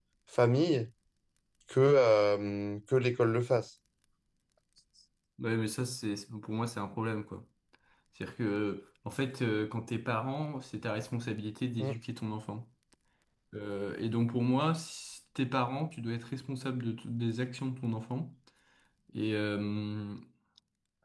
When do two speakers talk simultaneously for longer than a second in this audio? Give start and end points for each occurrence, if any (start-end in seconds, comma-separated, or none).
none